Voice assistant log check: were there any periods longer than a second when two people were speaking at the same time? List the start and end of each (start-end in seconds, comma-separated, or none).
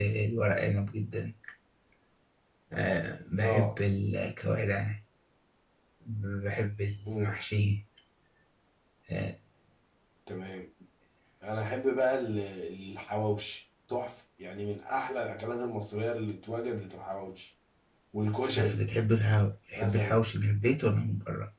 none